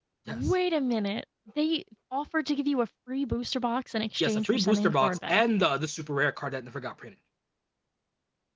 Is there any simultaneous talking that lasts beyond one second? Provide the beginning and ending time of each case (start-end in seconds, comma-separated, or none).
4.2-5.4